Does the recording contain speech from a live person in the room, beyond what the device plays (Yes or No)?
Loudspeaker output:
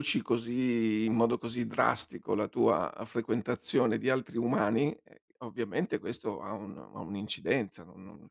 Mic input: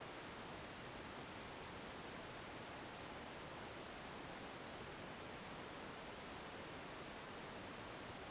No